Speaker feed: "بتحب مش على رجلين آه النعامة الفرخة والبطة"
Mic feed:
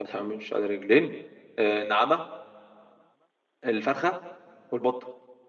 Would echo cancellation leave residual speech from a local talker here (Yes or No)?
No